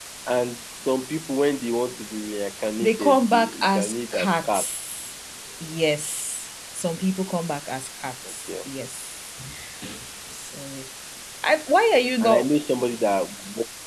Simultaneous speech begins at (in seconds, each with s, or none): 2.8 s